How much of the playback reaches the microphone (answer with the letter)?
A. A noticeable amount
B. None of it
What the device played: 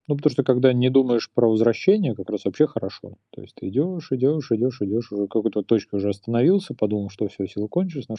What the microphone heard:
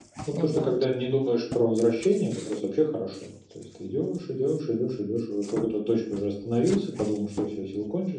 A